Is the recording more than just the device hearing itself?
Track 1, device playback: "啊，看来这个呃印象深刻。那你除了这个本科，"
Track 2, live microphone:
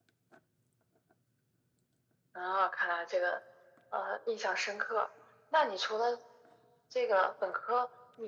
No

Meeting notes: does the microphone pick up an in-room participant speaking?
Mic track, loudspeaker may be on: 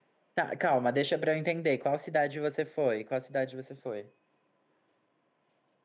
Yes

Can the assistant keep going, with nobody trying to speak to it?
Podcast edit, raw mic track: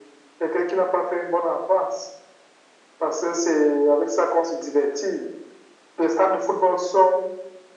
Yes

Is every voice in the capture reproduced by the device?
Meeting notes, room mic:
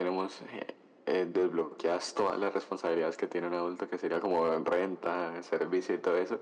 Yes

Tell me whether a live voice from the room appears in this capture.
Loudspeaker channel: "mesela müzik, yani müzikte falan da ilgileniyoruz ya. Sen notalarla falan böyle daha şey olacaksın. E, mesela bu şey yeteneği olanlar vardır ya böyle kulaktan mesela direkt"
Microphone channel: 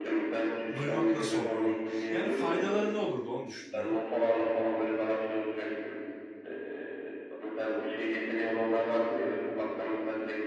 Yes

